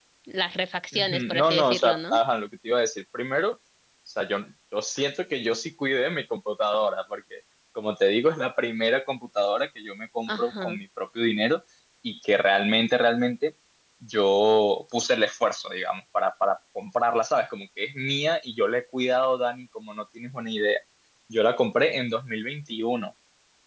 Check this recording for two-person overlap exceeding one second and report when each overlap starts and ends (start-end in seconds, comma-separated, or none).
0.9-2.2